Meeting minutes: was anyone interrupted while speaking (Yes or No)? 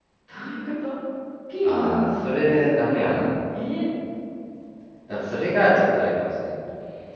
Yes